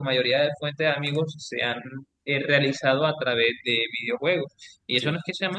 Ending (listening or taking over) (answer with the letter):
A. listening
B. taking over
A